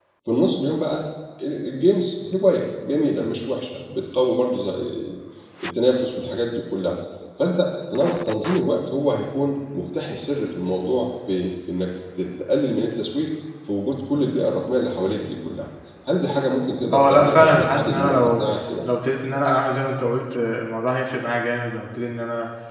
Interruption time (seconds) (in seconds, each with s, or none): 16.9 s